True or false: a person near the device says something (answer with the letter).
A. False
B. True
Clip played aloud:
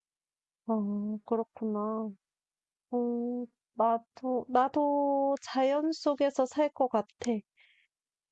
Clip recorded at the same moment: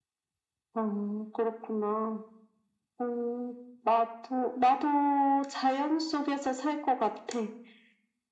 A